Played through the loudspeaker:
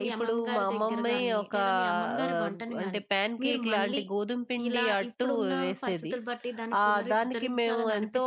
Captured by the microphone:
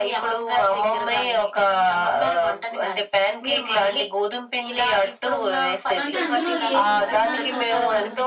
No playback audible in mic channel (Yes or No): No